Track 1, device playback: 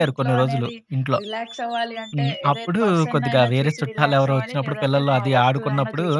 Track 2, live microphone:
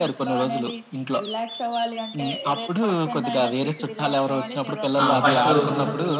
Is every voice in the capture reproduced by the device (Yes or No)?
No